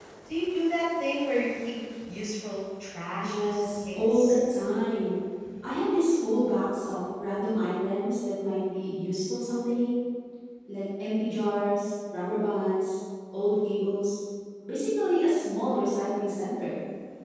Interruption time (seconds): 3.1 s

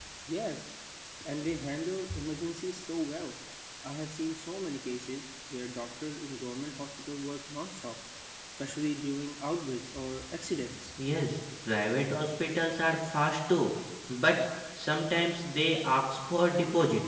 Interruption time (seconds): none

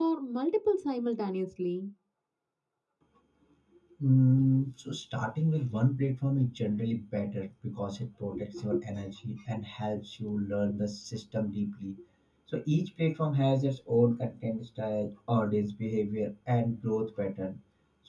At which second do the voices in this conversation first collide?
none

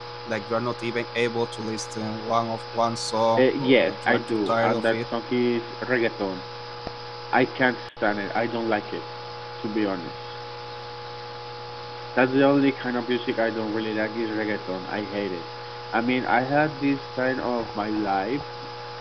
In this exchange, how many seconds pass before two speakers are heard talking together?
3.4 s

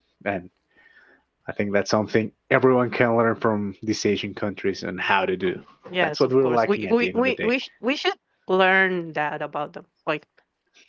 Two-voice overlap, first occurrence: 6.0 s

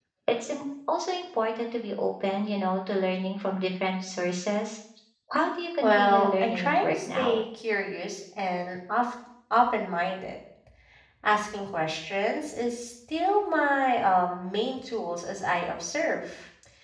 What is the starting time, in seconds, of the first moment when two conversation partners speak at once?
5.8 s

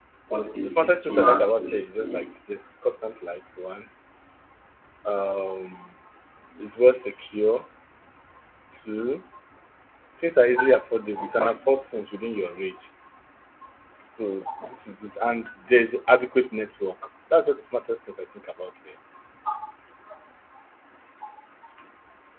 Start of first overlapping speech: 0.6 s

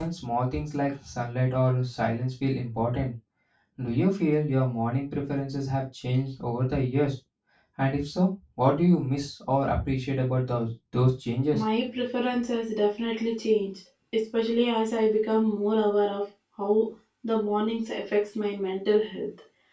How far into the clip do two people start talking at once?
none

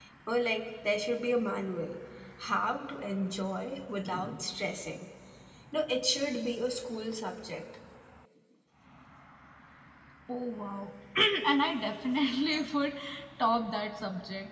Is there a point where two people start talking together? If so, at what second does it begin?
none

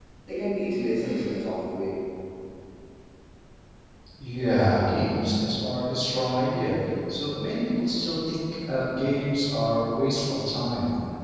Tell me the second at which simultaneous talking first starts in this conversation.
none

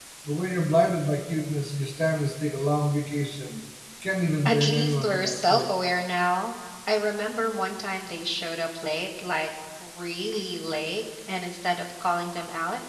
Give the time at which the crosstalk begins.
4.5 s

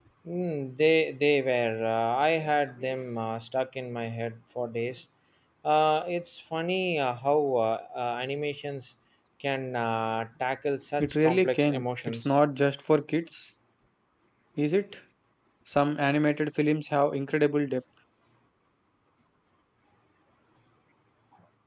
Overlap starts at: 11.0 s

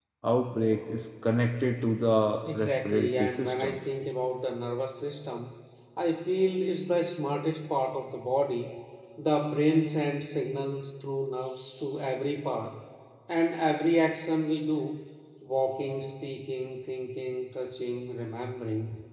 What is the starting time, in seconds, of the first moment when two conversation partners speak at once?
2.4 s

